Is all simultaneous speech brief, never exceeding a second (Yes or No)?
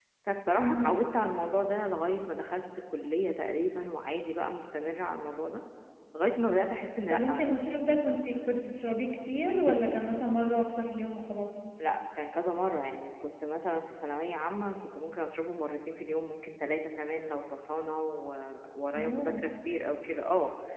Yes